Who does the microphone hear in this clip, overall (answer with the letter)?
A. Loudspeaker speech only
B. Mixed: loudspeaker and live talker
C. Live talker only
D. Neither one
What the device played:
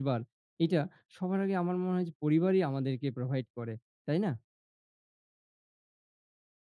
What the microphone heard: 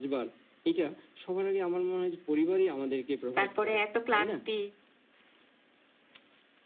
B